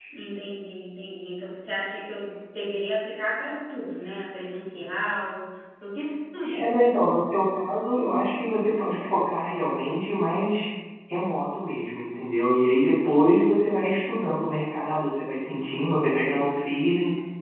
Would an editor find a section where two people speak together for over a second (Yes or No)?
No